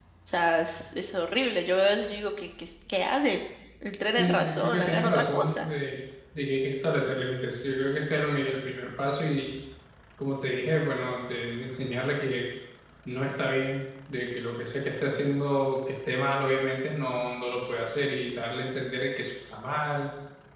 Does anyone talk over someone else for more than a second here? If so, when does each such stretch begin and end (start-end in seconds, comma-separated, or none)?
4.1-5.7